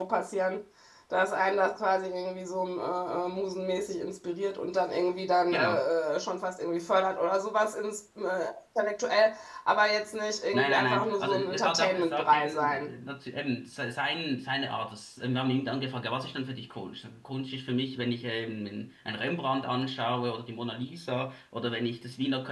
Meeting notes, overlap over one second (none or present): present